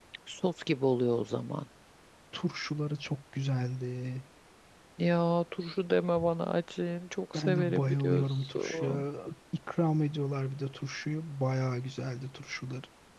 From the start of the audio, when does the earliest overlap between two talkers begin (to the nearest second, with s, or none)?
7 s